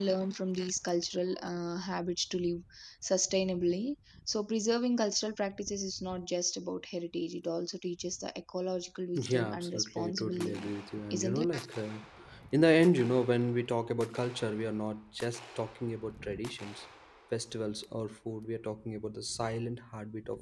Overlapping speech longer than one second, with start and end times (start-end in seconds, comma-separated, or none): 9.2-10.7